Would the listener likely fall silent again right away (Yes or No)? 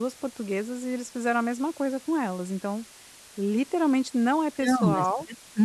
No